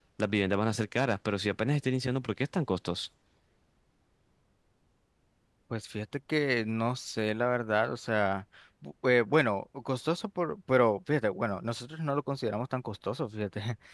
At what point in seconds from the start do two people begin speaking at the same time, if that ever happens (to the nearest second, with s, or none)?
none